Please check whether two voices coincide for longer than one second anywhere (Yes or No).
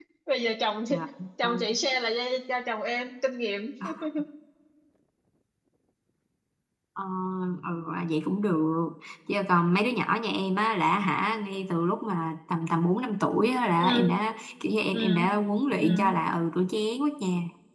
No